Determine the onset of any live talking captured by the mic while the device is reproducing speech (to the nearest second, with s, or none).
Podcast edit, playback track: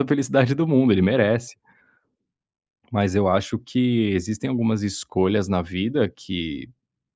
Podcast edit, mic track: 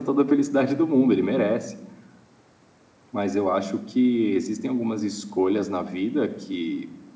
none